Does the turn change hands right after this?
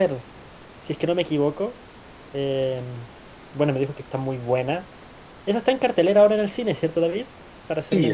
Yes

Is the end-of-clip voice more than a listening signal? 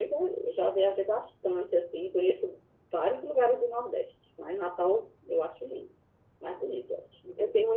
Yes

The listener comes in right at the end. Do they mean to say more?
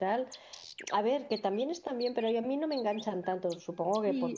Yes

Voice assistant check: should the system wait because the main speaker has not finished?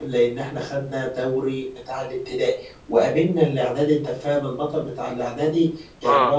Yes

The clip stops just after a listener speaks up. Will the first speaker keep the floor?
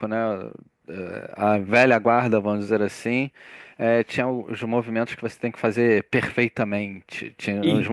Yes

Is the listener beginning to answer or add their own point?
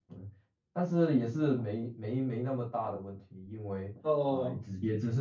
No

